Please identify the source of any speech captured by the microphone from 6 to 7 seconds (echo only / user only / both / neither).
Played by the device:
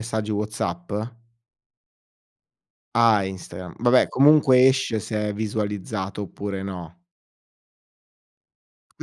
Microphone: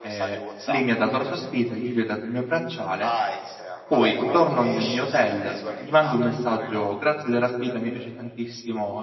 both